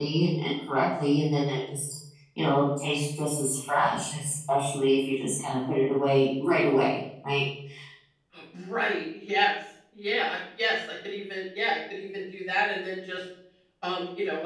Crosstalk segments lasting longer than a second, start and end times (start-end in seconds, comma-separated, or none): none